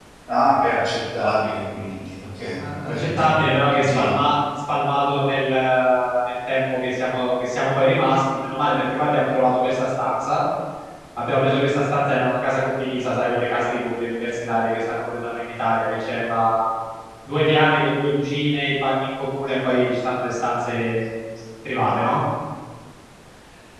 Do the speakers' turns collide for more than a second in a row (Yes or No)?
Yes